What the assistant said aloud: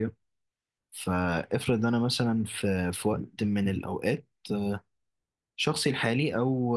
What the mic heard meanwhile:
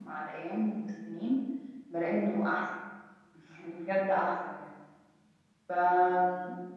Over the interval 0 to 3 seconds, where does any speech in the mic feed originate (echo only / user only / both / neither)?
user only